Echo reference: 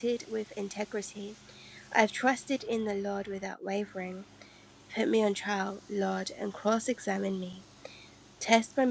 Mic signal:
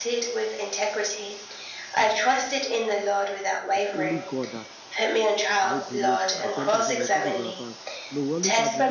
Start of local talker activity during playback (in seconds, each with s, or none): 3.7 s